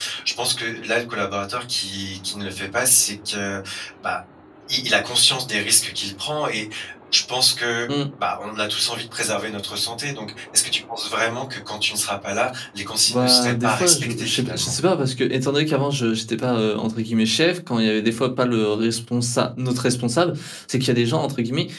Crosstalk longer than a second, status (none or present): present